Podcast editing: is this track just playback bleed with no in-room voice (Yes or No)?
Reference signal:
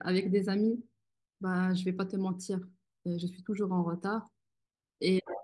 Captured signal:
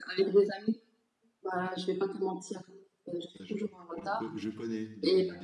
No